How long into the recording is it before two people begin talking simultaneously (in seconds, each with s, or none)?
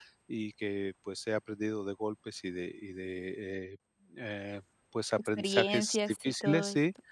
5.2 s